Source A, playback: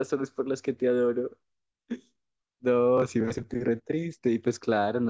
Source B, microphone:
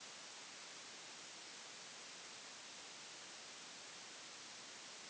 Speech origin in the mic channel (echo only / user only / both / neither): neither